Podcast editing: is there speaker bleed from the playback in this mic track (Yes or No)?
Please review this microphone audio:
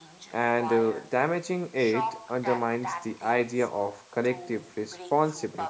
Yes